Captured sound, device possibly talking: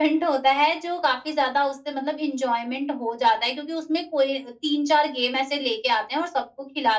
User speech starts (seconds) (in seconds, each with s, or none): none